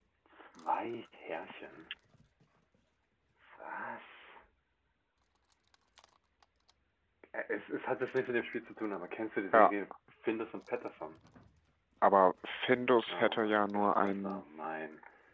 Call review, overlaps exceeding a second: present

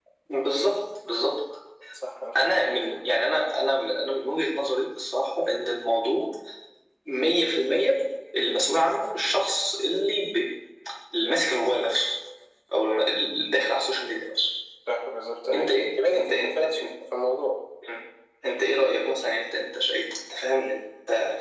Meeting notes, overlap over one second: present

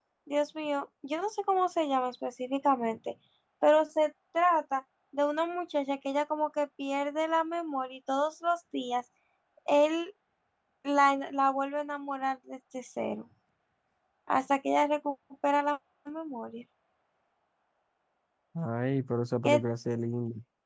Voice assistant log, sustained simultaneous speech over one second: none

